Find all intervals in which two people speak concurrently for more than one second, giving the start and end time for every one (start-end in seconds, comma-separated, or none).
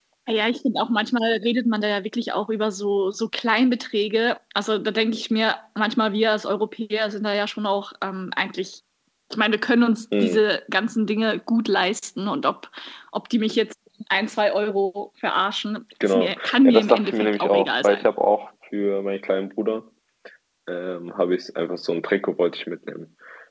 16.0-18.1